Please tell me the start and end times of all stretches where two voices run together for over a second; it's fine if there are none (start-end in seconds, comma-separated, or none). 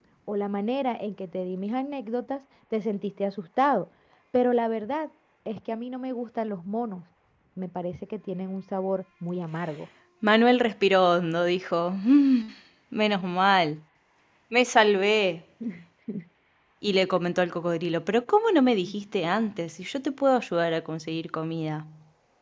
none